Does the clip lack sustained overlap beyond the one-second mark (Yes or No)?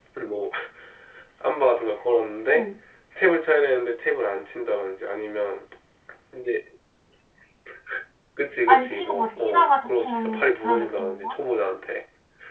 No